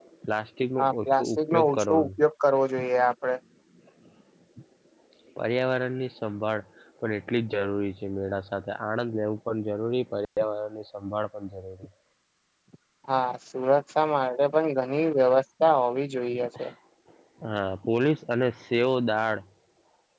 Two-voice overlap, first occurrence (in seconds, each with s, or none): 0.8 s